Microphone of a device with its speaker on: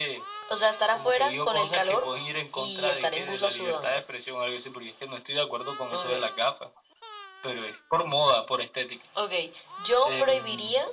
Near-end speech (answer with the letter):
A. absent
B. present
A